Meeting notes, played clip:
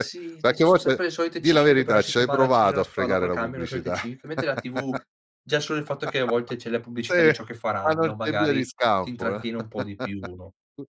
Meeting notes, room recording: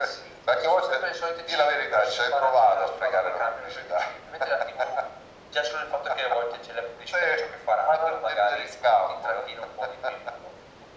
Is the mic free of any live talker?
Yes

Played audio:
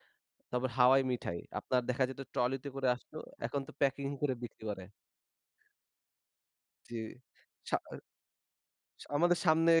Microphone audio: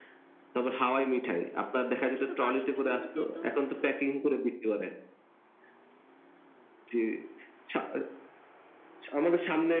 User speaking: Yes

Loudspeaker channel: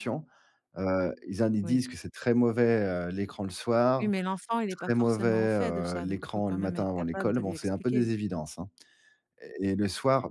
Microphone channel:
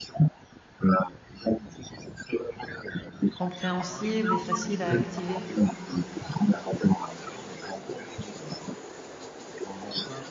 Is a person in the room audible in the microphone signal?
Yes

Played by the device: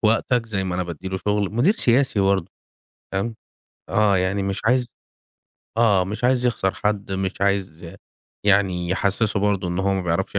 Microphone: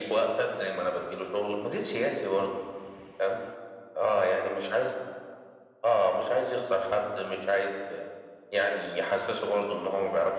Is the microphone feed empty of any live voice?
Yes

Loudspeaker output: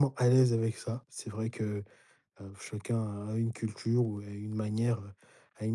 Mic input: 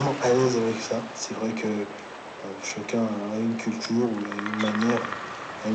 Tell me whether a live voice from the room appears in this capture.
No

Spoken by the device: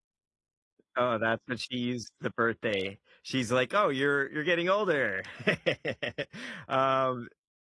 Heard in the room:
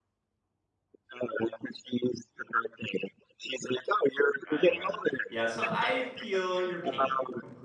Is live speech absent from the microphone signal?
No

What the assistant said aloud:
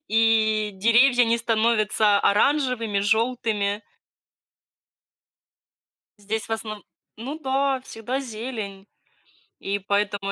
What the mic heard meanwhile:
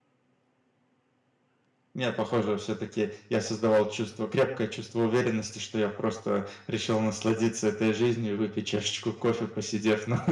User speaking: Yes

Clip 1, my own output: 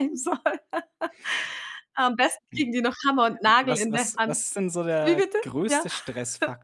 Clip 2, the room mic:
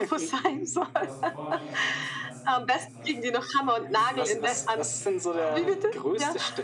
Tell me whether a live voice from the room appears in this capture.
Yes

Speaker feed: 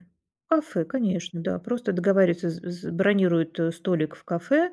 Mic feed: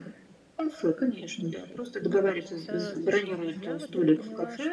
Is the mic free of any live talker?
No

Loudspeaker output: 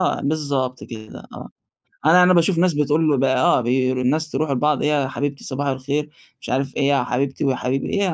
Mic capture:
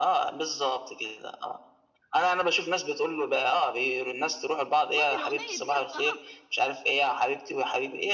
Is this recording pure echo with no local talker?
No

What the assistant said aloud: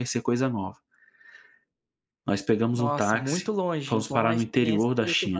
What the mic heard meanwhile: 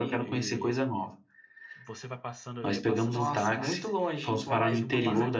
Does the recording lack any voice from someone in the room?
No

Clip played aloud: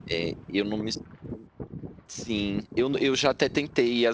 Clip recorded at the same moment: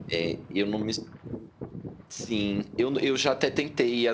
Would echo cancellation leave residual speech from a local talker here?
No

